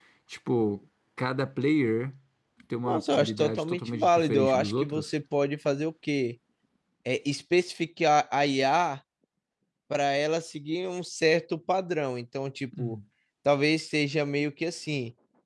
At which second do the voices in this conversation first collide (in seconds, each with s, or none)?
2.9 s